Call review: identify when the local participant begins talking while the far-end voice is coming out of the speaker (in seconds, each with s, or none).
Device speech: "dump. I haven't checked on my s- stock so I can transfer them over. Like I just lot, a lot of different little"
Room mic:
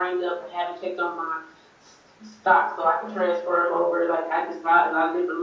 none